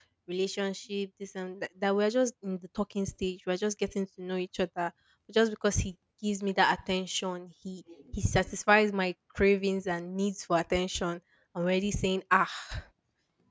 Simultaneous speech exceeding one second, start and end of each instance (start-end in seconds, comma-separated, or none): none